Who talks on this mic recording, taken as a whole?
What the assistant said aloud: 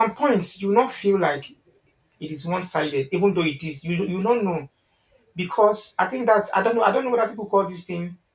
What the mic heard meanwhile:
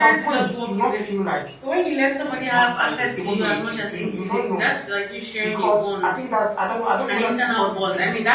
both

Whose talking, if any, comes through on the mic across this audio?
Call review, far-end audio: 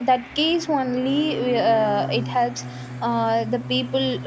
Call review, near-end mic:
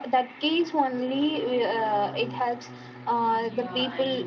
both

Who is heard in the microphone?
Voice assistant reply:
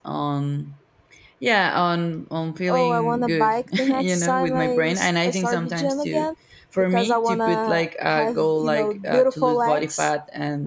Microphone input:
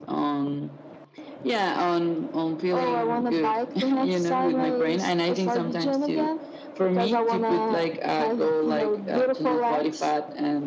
echo only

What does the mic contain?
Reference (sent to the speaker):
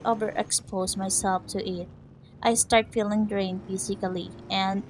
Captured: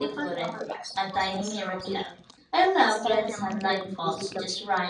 both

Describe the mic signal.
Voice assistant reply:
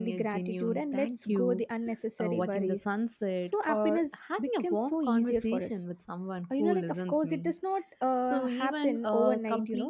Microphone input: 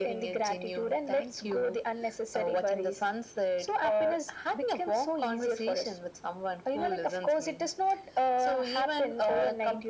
echo only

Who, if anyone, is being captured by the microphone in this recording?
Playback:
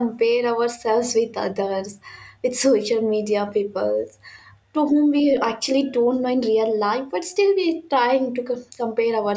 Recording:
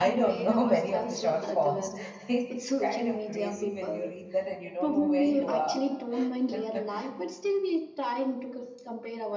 both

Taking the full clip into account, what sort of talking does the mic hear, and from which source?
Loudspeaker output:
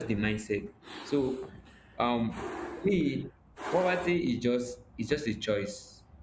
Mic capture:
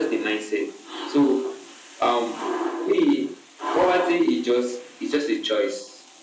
echo only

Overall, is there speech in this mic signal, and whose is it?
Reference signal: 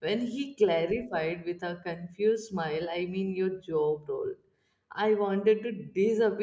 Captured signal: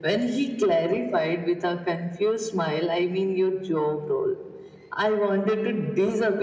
echo only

